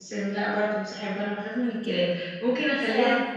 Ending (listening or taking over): listening